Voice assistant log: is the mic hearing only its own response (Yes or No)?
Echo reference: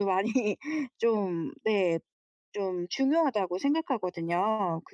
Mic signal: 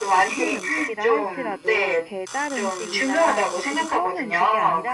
No